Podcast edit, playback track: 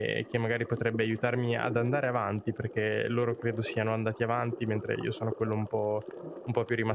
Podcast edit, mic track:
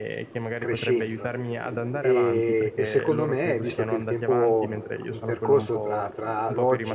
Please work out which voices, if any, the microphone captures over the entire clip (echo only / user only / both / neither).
both